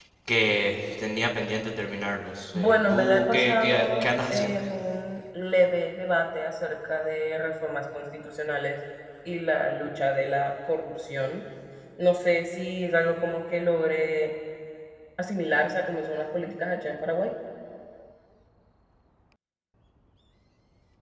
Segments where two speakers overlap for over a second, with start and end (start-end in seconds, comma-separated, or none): 2.5-4.5